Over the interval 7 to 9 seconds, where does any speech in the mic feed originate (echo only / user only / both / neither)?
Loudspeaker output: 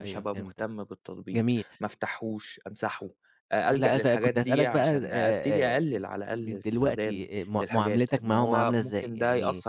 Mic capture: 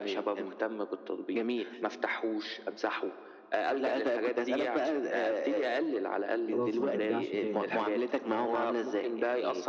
both